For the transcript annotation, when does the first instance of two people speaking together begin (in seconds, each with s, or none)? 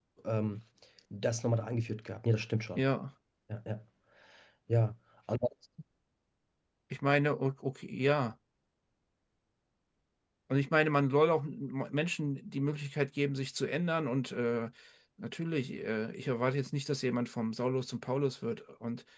none